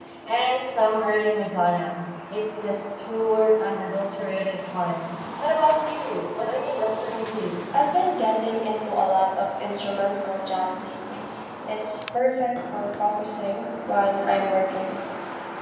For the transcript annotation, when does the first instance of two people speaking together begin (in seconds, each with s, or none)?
none